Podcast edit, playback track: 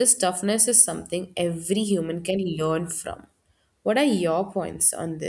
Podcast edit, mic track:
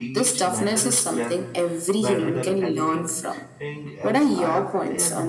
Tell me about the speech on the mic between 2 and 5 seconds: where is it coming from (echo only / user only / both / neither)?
both